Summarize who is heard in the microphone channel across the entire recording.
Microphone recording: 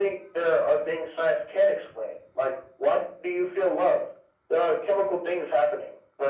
echo only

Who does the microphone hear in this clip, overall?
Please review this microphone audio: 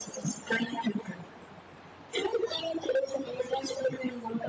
echo only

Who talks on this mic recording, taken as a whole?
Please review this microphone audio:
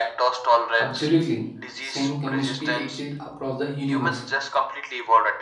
both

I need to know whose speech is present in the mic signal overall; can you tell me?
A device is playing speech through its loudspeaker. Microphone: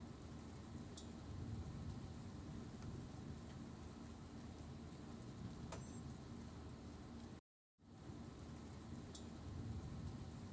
neither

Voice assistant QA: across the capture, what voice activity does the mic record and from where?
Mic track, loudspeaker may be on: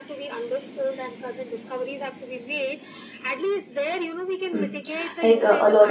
both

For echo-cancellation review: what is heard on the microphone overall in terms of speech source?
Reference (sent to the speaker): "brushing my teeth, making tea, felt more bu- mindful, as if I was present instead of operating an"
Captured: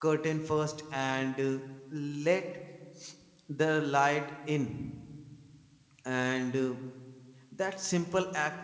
user only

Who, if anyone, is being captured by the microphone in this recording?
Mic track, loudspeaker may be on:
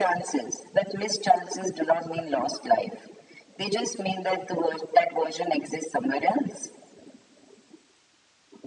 echo only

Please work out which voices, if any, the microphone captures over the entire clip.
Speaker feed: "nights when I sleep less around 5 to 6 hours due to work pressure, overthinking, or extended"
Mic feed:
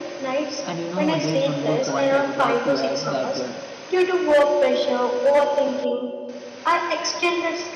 both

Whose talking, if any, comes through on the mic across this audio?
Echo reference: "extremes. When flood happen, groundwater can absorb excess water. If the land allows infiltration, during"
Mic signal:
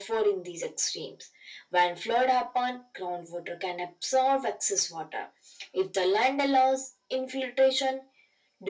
echo only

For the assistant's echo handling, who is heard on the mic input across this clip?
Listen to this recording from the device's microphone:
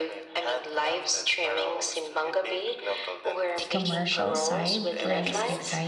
both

